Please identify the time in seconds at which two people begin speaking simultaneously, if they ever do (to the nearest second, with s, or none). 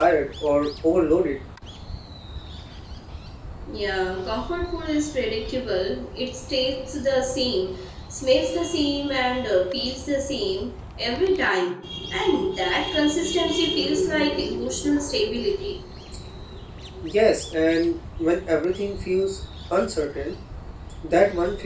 none